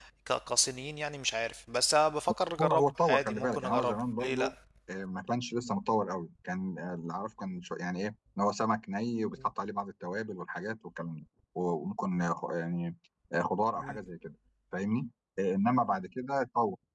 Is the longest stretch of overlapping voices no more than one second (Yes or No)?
No